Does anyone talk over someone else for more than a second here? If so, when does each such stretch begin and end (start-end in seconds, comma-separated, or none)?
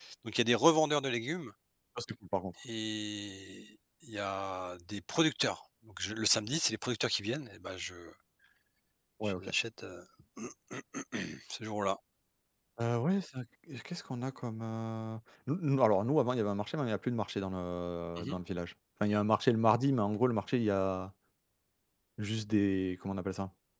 none